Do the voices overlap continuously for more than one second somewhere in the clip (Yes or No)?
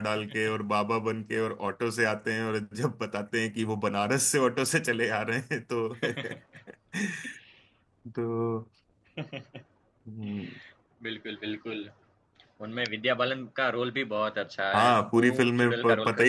Yes